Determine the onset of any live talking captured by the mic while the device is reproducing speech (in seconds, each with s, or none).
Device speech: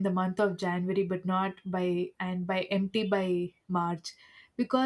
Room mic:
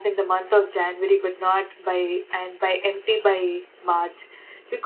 none